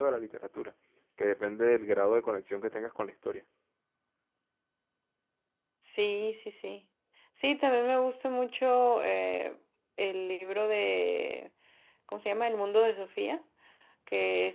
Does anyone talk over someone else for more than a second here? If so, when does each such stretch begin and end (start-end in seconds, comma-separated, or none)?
none